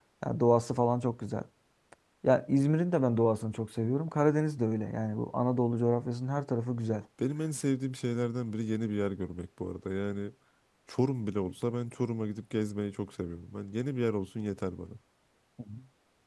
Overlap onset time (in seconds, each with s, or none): none